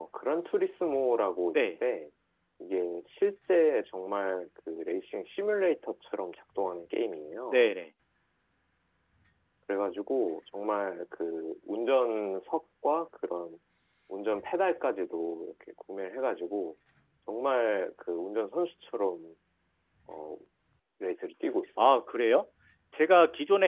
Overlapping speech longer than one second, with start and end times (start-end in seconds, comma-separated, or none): none